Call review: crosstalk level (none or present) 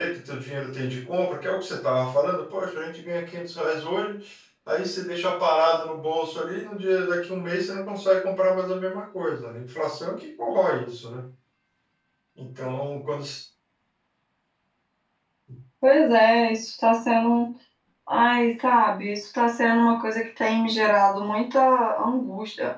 none